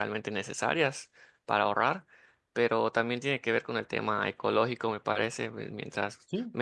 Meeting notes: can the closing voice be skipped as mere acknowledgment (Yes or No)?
Yes